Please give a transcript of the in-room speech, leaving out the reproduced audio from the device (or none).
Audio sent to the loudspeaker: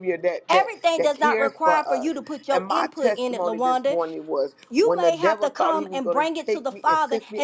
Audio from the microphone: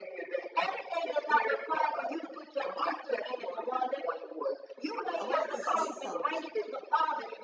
I wanted to say something.